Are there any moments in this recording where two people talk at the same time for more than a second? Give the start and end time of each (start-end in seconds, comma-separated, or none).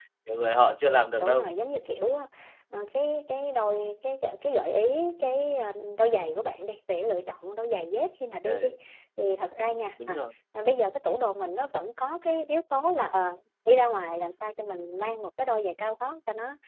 none